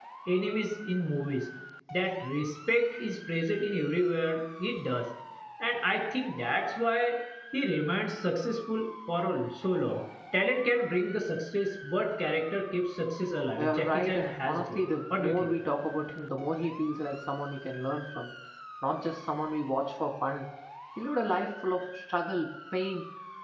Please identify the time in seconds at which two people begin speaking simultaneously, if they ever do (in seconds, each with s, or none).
13.5 s